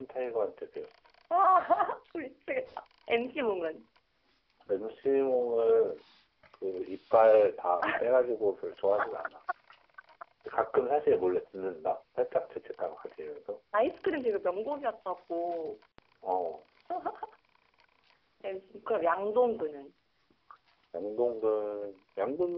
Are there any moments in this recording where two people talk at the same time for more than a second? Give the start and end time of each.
none

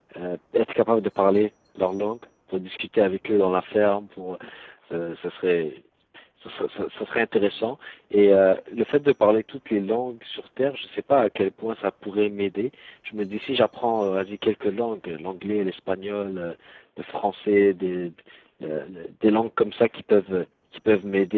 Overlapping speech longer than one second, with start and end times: none

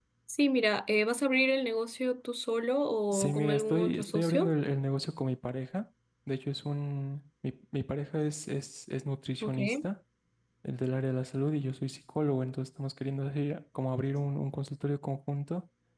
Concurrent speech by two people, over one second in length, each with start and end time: 3.1-4.5

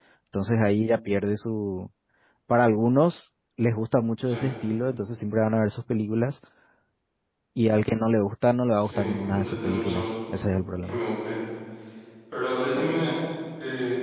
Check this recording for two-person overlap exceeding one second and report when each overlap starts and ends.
8.8-10.1

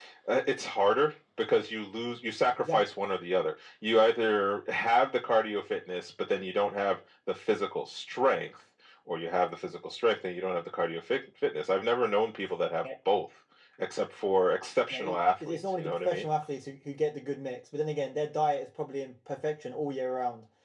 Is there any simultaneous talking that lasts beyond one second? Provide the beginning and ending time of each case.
14.9-16.3

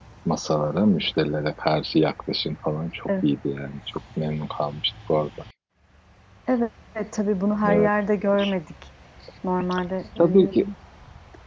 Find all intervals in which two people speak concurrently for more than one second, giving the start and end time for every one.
none

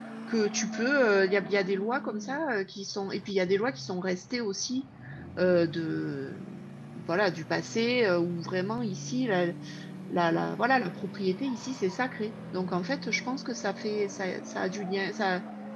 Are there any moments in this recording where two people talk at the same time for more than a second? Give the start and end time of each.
none

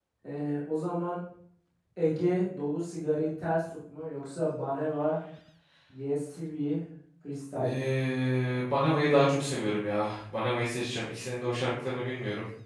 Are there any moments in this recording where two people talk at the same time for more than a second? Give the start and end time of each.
none

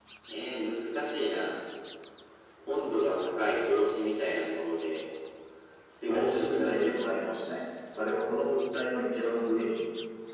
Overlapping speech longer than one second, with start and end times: 6.0-7.4

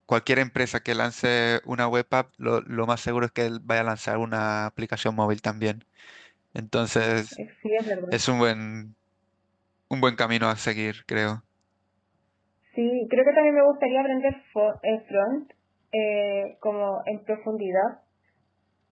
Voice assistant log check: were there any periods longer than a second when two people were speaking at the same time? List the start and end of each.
none

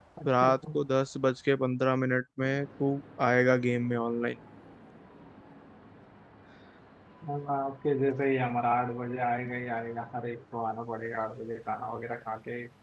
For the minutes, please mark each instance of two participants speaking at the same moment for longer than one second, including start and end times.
none

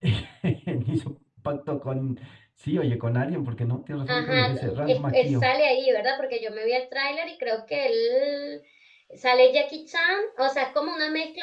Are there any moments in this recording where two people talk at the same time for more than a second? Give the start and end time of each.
4.1-5.5

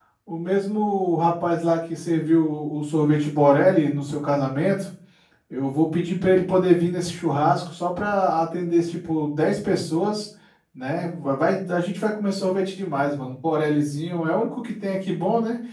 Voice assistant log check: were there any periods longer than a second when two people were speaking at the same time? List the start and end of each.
none

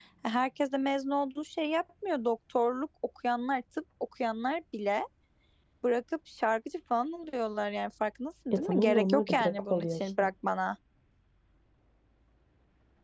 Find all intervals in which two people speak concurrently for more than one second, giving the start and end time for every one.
8.5-10.3

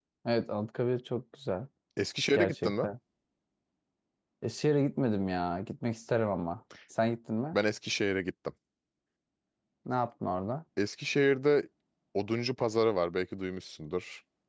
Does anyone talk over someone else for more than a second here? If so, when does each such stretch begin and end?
none

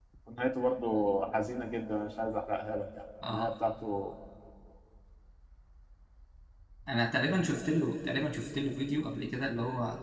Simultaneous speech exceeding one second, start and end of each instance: none

